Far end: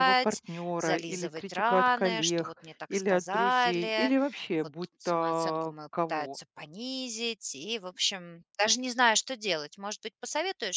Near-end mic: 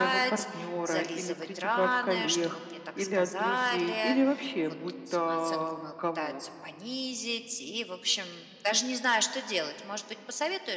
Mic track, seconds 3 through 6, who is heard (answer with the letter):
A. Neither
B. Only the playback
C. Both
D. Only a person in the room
B